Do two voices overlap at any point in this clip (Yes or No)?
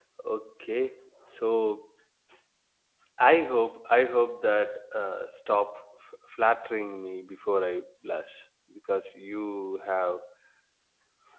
No